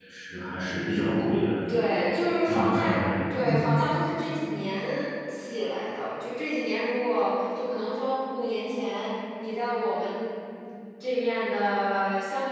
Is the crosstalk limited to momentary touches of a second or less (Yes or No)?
No